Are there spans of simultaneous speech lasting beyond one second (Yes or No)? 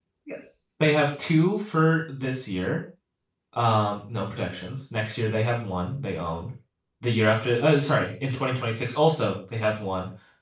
No